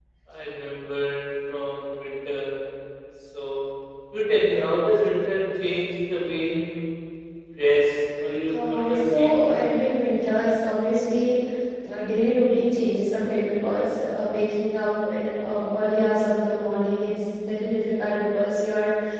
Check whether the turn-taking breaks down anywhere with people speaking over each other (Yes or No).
Yes